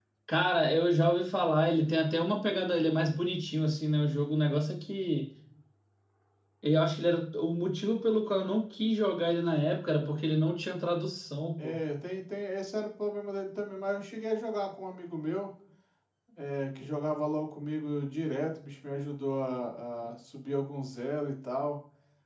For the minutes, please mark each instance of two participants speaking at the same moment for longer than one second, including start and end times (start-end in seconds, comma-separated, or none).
none